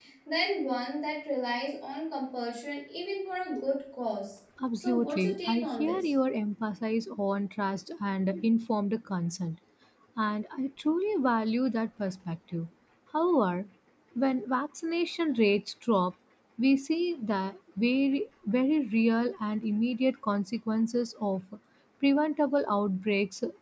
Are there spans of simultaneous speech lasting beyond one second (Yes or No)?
Yes